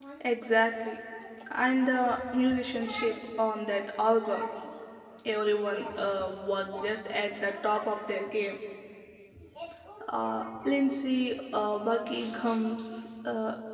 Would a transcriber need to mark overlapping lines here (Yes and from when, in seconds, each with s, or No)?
No